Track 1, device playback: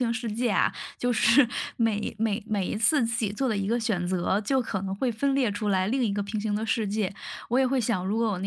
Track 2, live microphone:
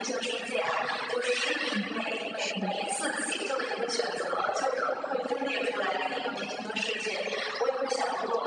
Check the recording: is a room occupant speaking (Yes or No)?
Yes